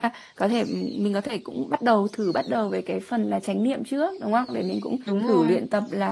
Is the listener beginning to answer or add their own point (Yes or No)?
No